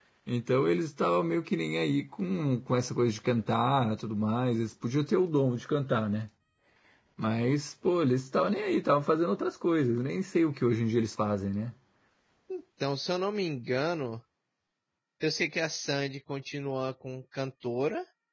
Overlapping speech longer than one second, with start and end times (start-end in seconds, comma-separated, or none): none